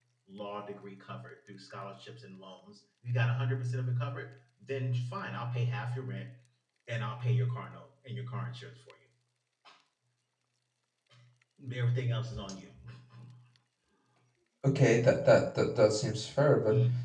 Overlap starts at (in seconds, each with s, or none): none